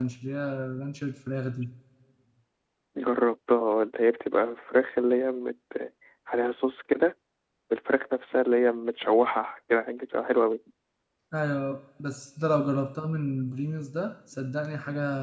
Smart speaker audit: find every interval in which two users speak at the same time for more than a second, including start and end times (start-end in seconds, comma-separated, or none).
none